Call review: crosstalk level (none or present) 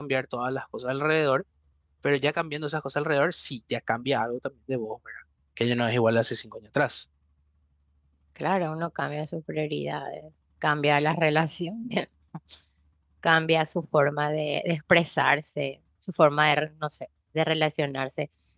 none